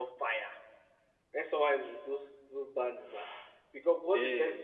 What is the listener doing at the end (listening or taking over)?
listening